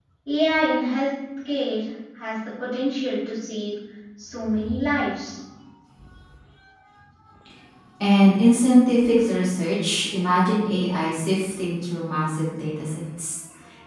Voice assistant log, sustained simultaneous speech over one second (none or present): none